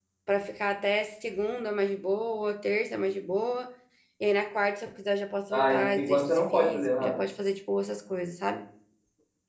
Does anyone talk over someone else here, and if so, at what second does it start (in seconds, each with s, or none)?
5.5 s